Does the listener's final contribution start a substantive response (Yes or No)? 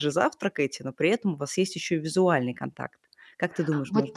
Yes